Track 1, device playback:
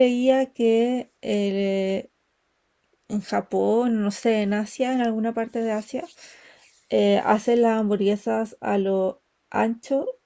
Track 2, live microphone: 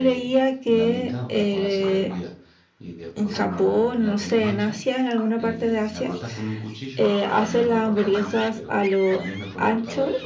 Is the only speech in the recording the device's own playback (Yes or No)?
No